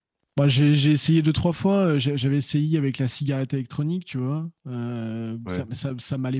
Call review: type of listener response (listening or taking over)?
listening